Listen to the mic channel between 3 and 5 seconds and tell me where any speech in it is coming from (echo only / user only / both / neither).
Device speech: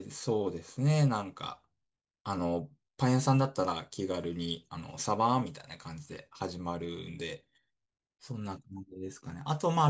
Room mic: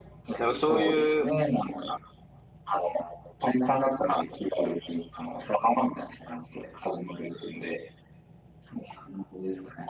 echo only